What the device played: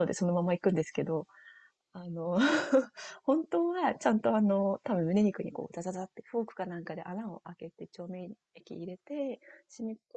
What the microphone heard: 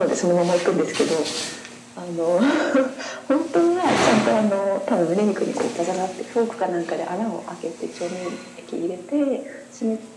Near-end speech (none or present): none